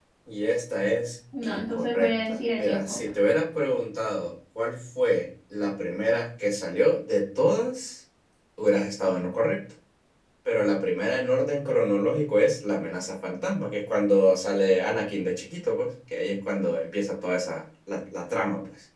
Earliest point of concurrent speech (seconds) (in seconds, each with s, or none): 1.3 s